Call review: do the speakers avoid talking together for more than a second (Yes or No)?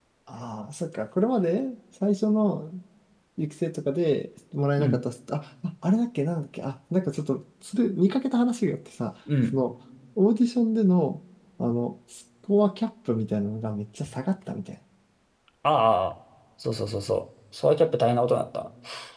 Yes